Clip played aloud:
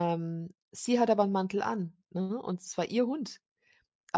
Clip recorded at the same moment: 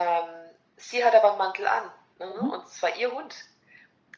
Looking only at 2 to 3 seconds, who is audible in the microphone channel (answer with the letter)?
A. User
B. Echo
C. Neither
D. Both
D